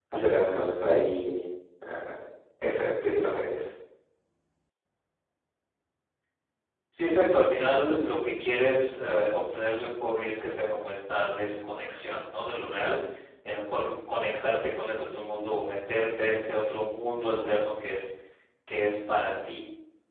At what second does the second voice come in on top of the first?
none

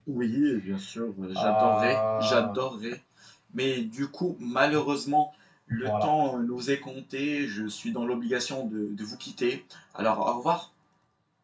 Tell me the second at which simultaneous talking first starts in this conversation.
1.4 s

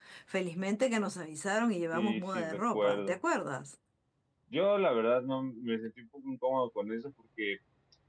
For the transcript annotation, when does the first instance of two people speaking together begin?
1.9 s

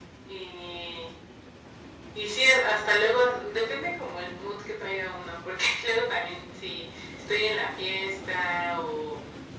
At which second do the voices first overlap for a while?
none

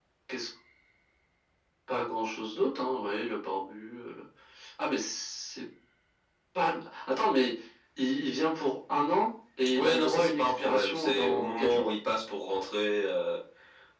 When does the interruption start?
9.7 s

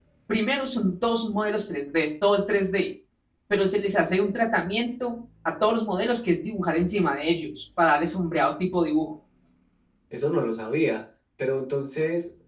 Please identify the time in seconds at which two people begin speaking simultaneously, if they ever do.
none

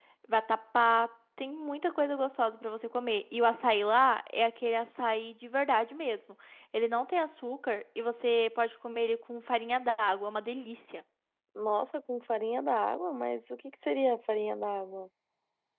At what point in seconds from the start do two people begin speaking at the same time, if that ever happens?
none

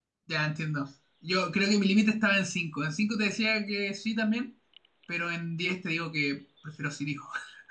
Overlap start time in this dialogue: none

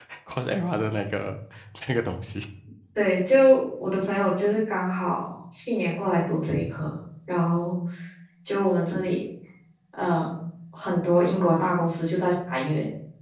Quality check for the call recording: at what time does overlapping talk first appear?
none

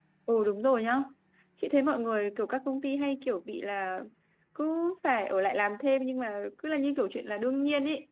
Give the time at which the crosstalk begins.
none

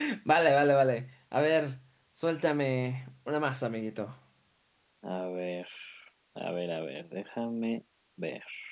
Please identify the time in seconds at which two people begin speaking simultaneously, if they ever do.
none

